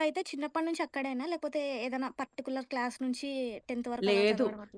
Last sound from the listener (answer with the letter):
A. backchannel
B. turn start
B